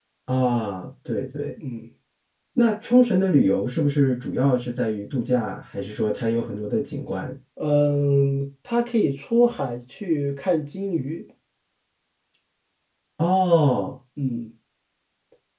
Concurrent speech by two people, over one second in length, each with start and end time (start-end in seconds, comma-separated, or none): none